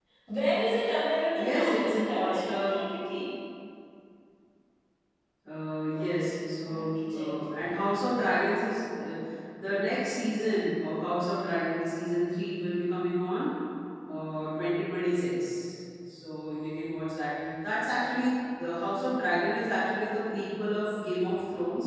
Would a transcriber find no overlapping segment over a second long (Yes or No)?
No